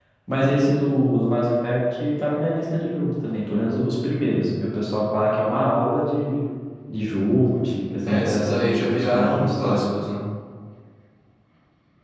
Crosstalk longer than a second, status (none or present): present